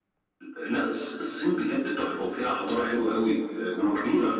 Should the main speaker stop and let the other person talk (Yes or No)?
Yes